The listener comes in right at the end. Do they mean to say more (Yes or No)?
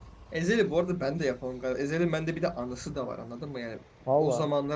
No